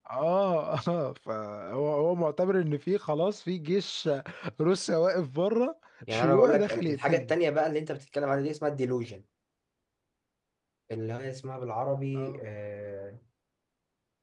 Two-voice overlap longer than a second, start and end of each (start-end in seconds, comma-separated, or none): 6.1-7.3